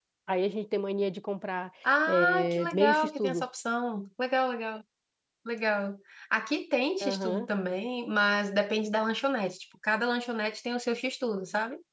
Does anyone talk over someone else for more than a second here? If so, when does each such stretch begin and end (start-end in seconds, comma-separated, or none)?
2.1-3.4